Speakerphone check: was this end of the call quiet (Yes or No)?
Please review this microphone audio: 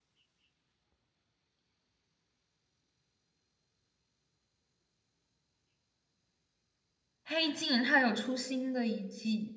No